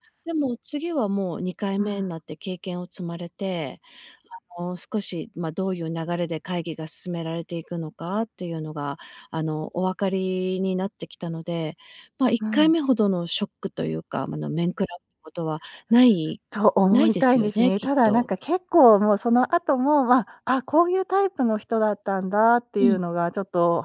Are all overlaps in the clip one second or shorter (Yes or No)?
No